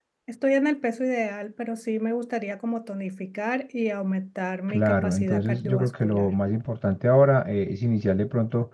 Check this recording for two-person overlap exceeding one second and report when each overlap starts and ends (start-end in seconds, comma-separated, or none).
4.7-6.3